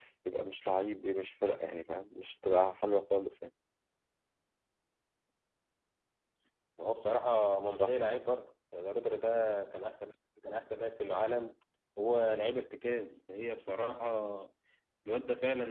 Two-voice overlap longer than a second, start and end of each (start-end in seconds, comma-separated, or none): none